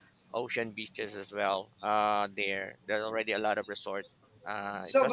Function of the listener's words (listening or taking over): taking over